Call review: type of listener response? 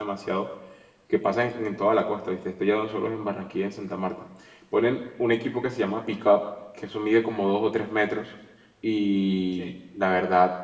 listening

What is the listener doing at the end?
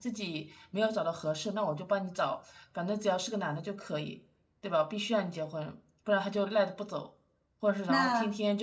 listening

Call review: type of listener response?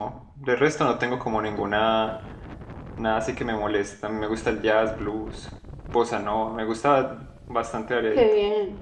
taking over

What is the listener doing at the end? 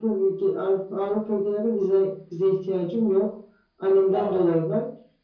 listening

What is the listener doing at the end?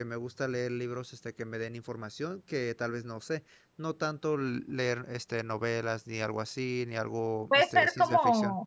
taking over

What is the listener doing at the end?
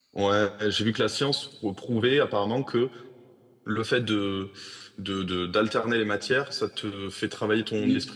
listening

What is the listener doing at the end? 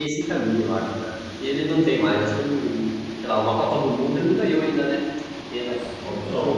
taking over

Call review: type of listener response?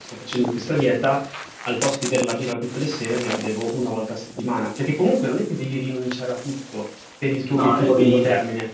listening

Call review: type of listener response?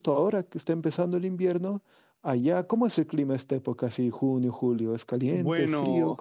taking over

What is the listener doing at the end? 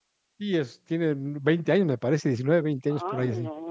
taking over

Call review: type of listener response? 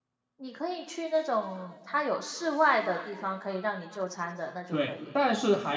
taking over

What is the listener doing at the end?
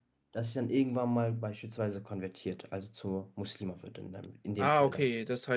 taking over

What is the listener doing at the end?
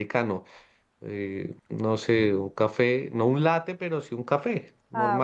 taking over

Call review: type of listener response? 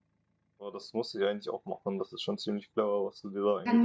taking over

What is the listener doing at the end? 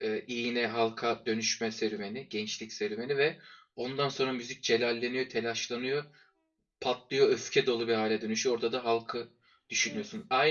listening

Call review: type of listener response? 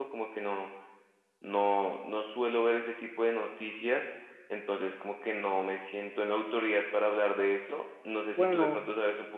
listening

